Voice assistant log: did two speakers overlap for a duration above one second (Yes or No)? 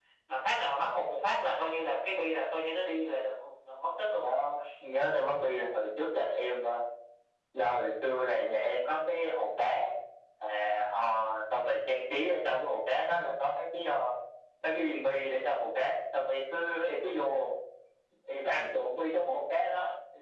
No